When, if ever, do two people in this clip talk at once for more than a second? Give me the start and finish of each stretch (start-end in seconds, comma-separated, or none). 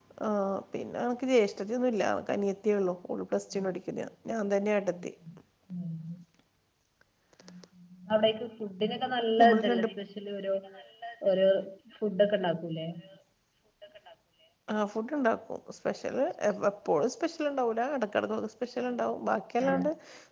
none